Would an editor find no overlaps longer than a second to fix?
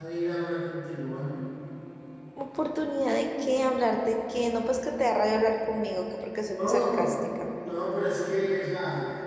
Yes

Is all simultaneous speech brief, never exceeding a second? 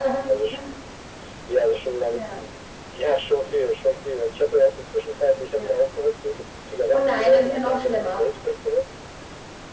No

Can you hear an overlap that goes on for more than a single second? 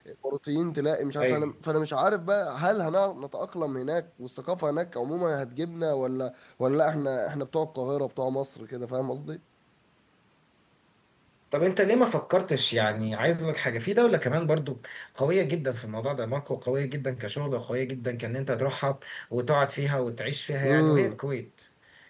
No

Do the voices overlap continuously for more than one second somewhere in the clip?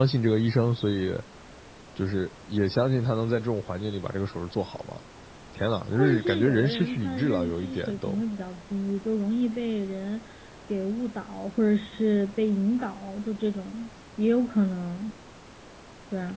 Yes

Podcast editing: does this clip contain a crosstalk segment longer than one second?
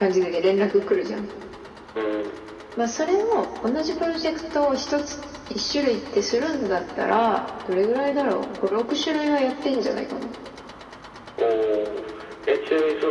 No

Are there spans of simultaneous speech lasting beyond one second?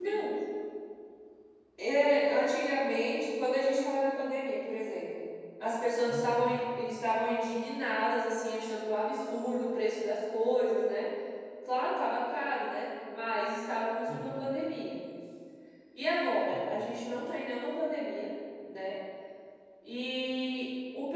No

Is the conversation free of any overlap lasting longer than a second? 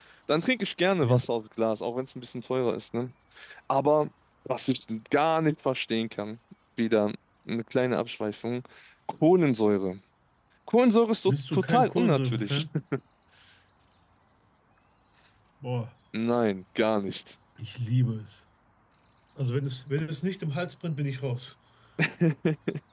No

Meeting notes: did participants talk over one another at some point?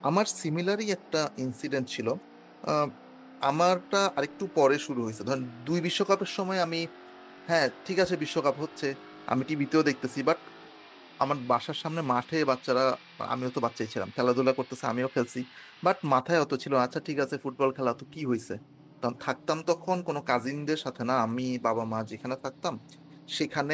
No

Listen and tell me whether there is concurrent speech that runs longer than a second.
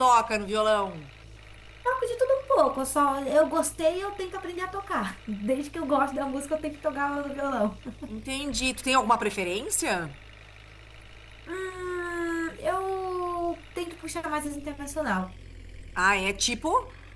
No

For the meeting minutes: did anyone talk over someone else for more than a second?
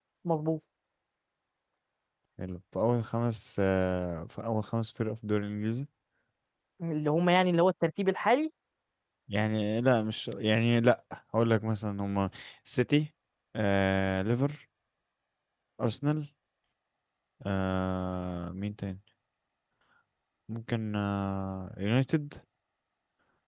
No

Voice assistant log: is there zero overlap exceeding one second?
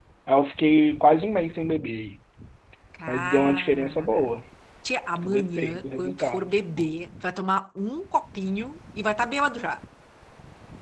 No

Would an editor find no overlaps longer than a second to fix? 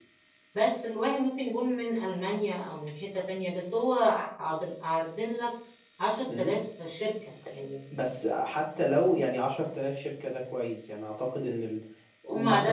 Yes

